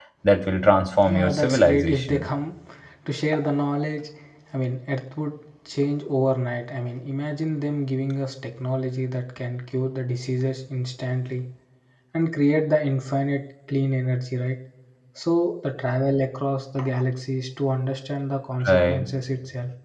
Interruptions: present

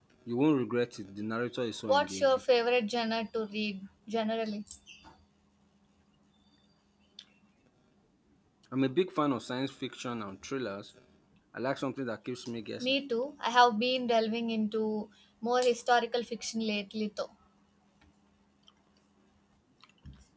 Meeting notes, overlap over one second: none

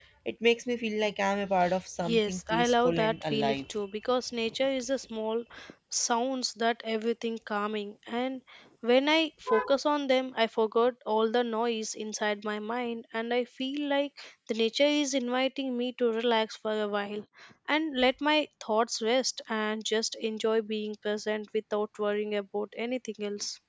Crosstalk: present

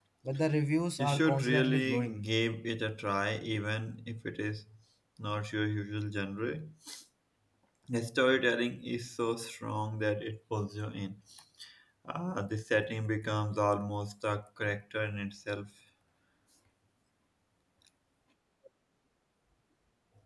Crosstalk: present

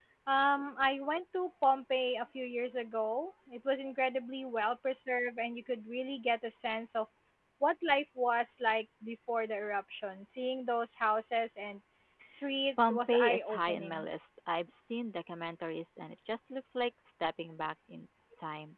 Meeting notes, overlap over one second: present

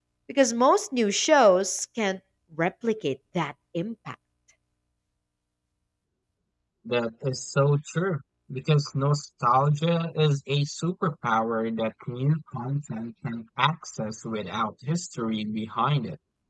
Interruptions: none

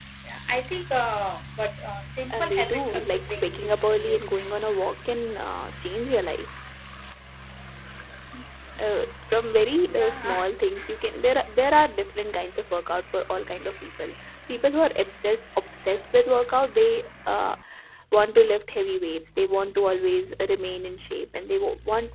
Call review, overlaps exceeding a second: present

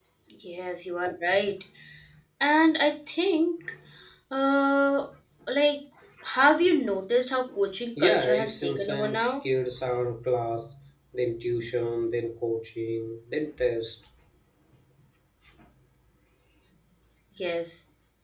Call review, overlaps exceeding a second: present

